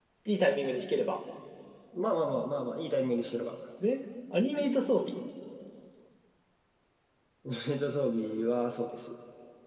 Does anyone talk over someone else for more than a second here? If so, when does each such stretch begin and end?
none

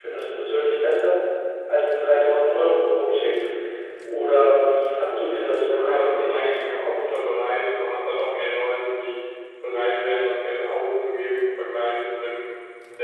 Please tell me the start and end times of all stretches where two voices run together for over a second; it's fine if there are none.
5.6-7.0

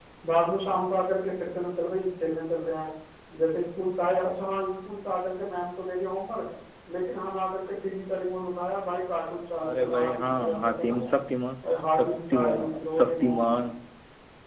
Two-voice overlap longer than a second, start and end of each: 9.6-11.1, 12.0-13.6

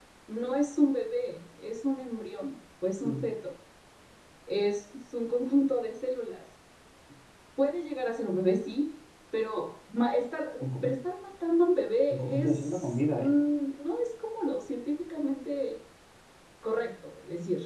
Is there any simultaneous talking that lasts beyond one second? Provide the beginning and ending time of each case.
12.1-13.4

